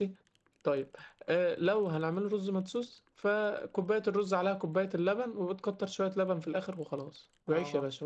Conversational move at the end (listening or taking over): listening